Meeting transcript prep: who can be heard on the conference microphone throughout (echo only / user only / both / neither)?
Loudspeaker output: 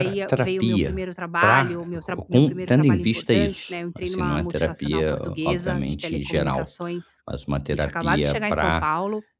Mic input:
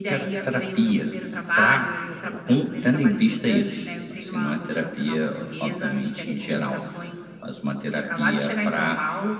echo only